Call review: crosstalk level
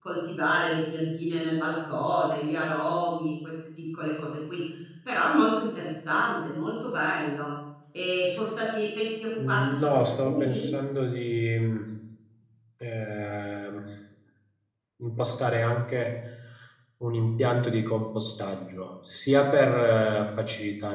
present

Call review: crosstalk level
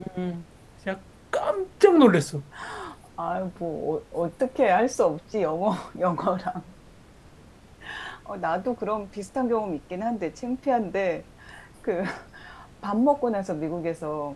none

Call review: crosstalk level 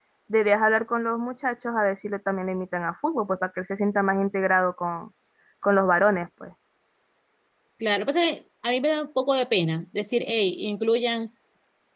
none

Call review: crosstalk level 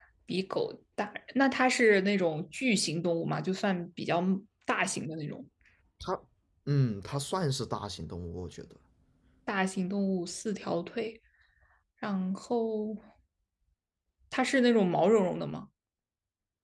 none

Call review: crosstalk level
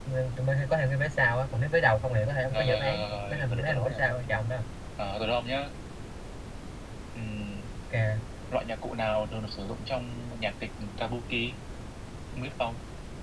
present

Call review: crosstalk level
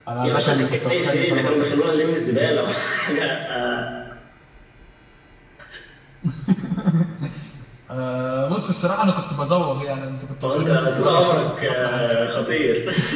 present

